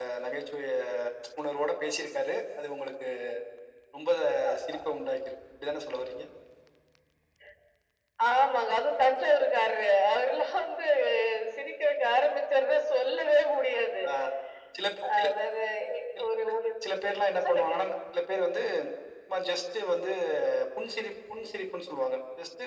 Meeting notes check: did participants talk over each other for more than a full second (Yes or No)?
No